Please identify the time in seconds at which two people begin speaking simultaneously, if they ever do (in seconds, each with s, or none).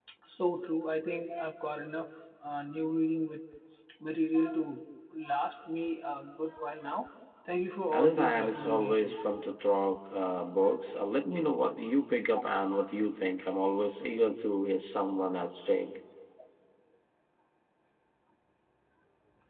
7.9 s